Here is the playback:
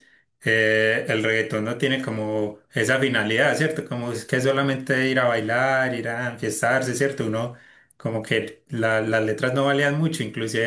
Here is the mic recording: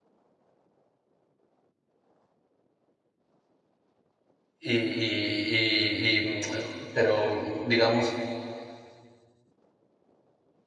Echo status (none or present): none